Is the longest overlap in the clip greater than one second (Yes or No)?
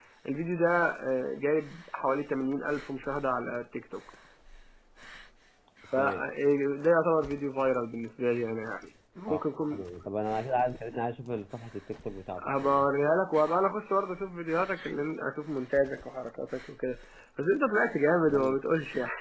No